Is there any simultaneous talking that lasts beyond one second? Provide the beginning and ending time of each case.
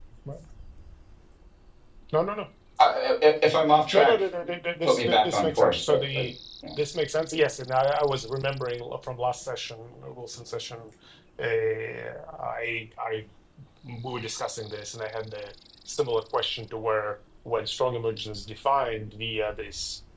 4.8-6.2

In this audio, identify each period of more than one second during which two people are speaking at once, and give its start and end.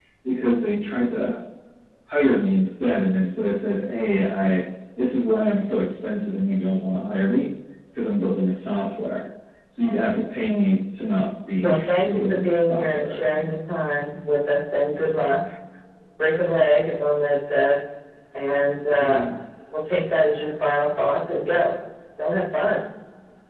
11.6-13.2

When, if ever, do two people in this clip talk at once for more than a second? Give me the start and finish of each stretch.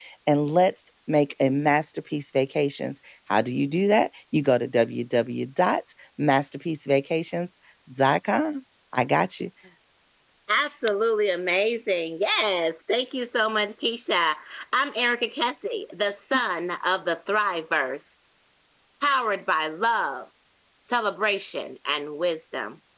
none

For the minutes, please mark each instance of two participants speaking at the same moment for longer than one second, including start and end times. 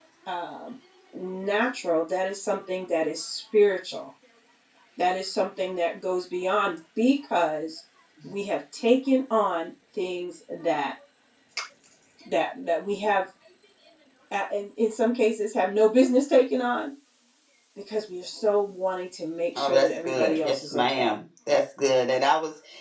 19.6-21.1

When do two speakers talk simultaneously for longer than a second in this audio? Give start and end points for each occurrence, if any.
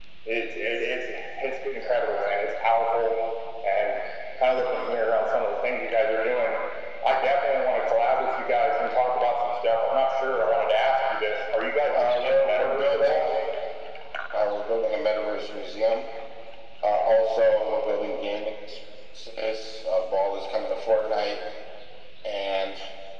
11.9-13.2

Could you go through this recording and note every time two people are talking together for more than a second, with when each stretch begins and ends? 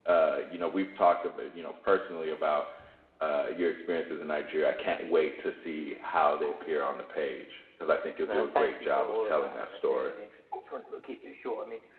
8.3-10.1

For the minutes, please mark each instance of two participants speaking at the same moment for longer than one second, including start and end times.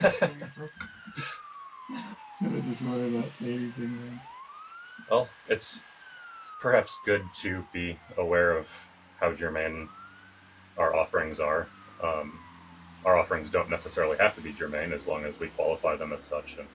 none

